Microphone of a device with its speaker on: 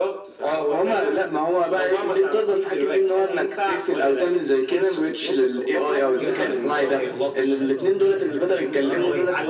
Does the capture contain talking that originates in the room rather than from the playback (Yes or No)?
Yes